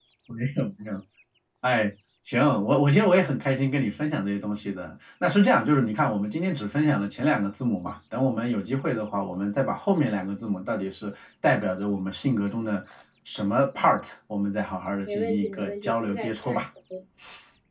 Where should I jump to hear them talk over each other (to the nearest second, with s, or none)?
15 s